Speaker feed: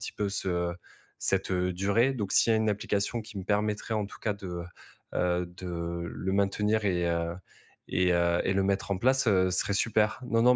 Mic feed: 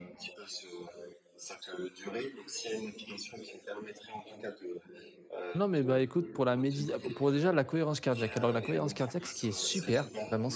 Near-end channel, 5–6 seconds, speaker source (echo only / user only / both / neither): both